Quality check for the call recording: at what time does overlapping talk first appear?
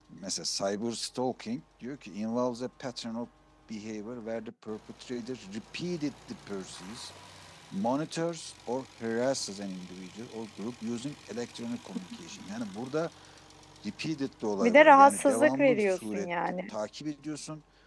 15 s

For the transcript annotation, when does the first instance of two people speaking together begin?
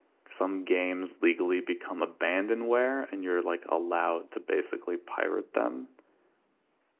none

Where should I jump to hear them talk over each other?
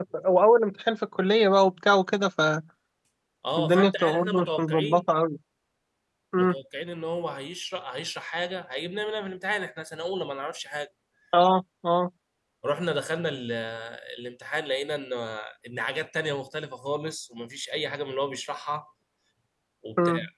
4 s

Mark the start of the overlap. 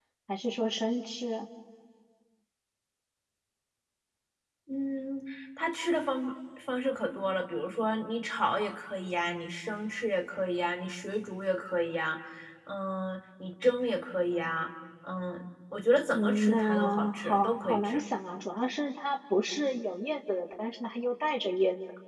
16 s

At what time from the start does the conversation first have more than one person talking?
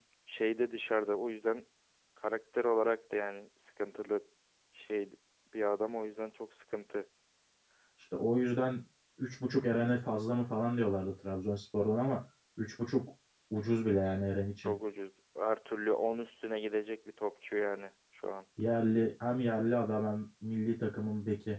none

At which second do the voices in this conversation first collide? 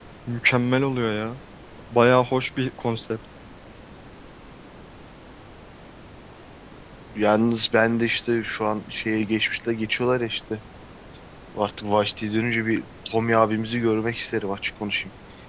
none

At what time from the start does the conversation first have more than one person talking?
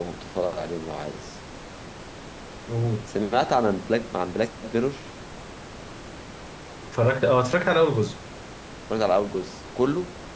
none

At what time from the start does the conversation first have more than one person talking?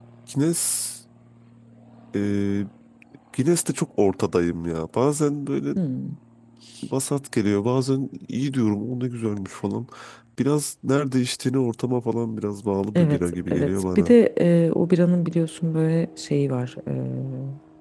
13 s

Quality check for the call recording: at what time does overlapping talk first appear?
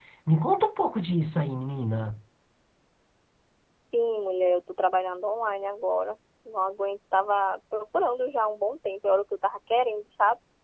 none

